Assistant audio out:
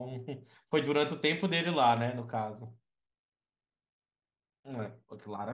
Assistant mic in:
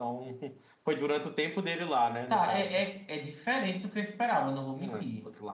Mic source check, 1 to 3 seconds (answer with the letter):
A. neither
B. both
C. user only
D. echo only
B